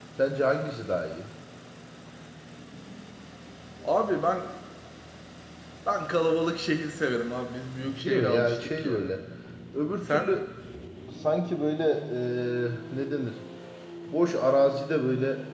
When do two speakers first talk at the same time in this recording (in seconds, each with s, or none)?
7.8 s